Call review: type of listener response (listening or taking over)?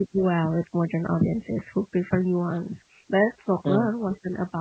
listening